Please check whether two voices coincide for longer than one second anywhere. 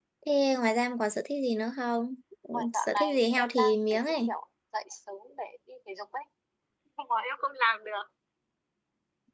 Yes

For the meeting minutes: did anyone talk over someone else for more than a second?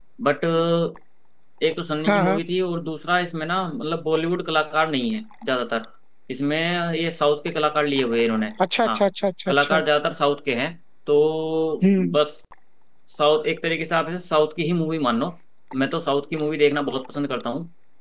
No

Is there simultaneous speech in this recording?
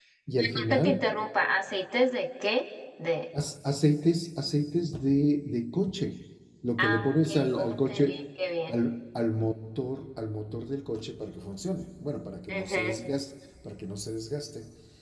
Yes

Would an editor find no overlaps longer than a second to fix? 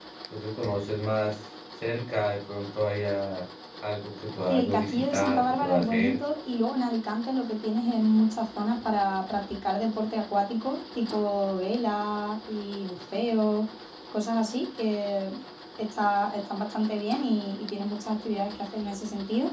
No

